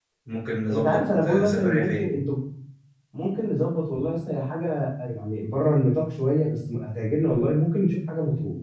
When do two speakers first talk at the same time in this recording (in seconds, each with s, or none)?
0.7 s